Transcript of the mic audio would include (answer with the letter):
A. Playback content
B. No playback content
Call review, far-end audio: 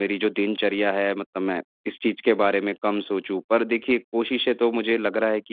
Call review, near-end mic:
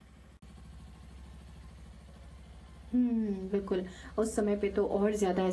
B